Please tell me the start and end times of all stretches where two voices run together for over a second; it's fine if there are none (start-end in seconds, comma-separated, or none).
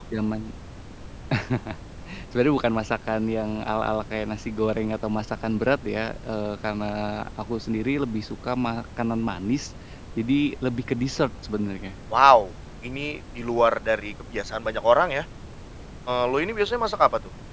none